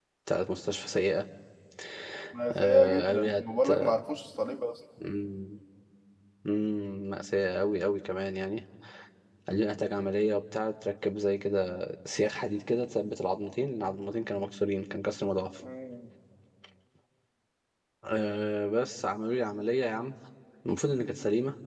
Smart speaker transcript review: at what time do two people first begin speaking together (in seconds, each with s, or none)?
2.5 s